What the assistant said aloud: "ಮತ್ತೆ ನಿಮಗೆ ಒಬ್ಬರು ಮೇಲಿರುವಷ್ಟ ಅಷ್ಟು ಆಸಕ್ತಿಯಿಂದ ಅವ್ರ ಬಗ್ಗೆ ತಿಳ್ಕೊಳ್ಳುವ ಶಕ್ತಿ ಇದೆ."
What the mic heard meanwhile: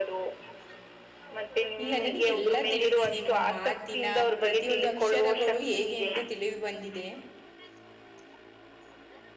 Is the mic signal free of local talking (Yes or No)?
No